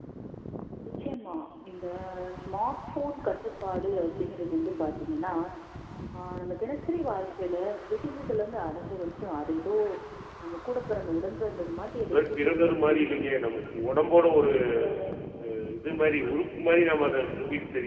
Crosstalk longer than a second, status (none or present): present